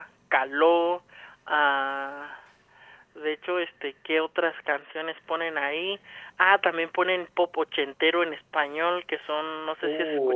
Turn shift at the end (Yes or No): No